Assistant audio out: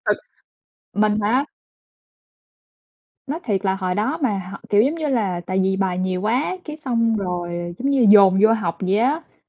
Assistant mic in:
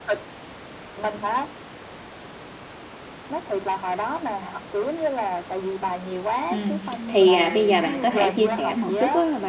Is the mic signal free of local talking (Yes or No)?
No